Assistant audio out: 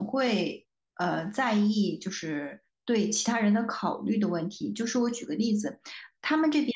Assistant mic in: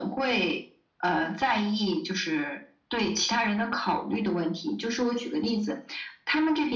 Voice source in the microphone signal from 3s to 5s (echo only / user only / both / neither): echo only